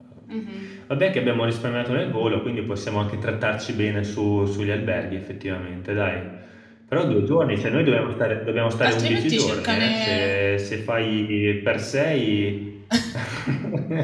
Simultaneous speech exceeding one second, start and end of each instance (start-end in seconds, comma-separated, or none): 8.8-10.3